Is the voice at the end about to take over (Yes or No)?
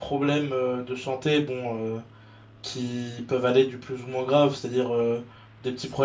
No